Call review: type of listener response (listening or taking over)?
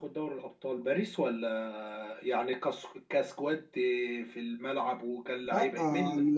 taking over